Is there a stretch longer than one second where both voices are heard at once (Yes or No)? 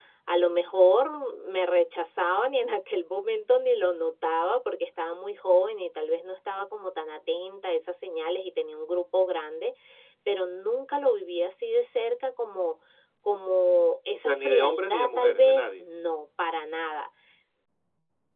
Yes